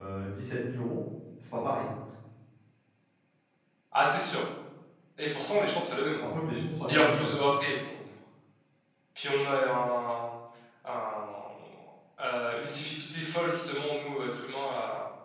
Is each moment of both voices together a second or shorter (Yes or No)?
Yes